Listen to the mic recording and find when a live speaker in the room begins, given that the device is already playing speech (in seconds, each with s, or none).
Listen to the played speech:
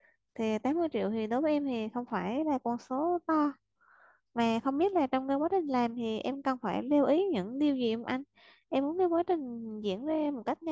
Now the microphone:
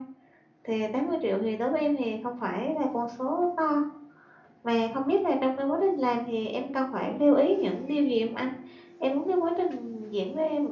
none